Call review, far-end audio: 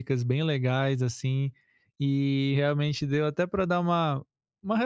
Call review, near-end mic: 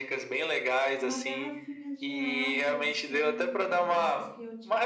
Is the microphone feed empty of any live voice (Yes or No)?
No